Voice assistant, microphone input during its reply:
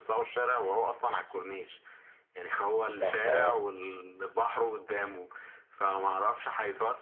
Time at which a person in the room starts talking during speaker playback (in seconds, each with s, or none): 2.9 s